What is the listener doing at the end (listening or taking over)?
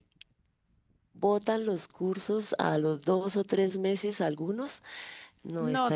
taking over